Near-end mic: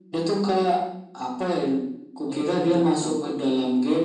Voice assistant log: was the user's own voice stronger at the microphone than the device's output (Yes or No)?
No